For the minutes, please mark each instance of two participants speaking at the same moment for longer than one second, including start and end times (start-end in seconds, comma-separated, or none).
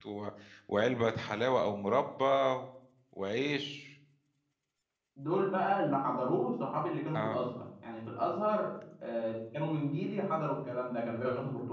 none